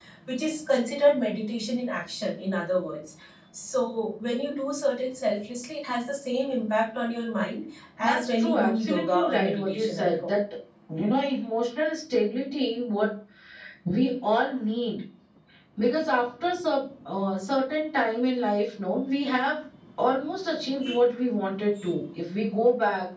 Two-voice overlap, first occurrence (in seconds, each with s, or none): 8.0 s